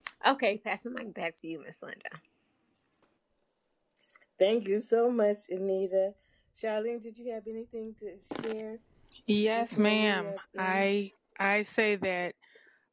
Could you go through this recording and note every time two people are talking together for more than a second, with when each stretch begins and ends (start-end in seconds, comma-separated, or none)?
9.6-10.9